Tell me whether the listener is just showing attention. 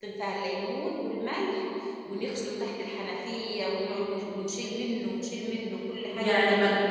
No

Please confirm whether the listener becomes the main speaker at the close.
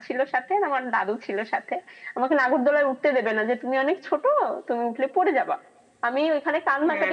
No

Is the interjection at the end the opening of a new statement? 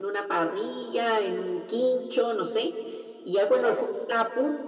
No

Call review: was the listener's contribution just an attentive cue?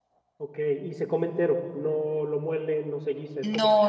No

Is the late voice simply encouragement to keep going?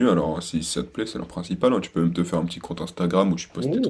No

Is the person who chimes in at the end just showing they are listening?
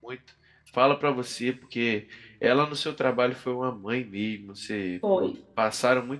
Yes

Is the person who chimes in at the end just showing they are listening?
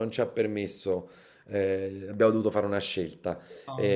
Yes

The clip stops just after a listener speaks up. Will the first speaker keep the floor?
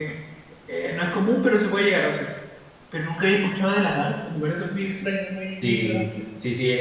No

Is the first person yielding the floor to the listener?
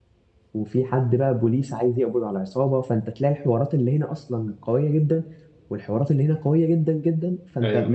No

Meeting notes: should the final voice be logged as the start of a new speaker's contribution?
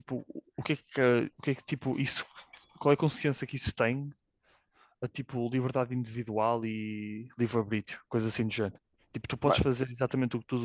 No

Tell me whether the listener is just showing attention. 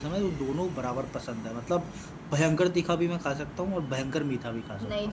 No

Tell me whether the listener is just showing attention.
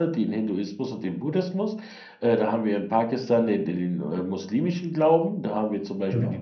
Yes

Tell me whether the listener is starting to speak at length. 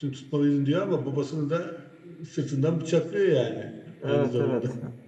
Yes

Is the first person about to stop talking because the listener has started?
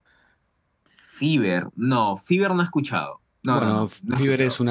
Yes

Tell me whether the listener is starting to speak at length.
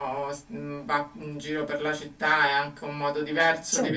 No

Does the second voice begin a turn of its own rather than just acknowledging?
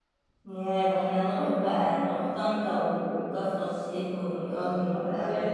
Yes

